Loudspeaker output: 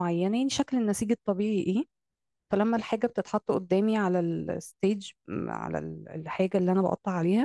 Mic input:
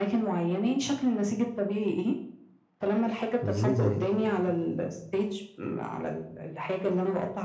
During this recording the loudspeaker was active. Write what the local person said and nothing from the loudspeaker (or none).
مش زي زمان